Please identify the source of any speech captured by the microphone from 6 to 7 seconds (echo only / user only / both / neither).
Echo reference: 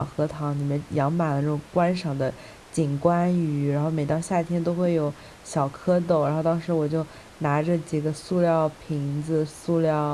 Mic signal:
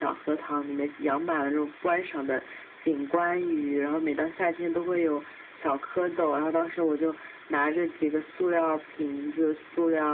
echo only